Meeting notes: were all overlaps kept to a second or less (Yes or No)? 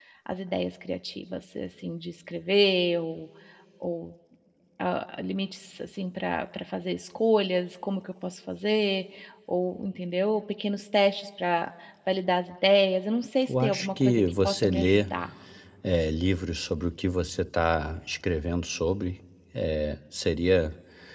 No